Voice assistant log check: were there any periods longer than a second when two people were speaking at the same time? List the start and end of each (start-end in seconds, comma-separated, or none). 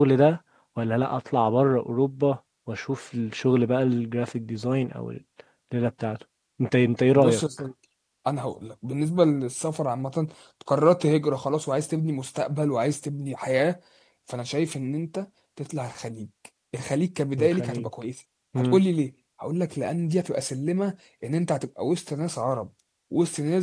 none